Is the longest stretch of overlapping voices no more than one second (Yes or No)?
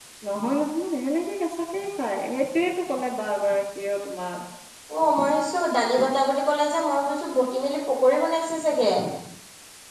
Yes